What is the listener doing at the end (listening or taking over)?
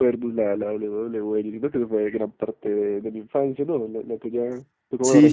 taking over